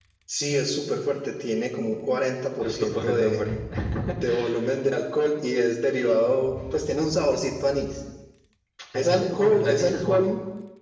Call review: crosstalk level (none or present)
present